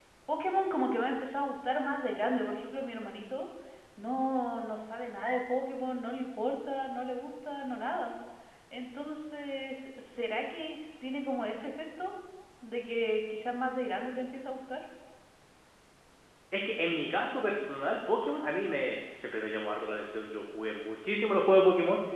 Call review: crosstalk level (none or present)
none